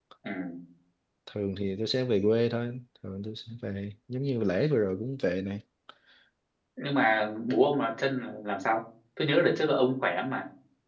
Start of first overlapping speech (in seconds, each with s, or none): none